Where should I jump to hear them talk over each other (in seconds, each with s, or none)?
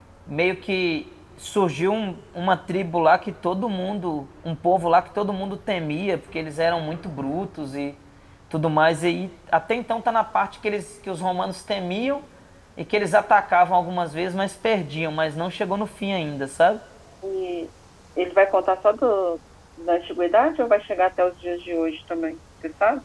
none